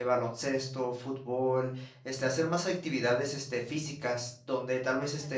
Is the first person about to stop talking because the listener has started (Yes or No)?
No